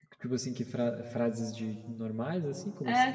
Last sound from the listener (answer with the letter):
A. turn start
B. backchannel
A